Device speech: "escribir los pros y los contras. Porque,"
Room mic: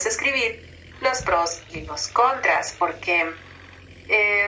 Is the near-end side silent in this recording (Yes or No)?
Yes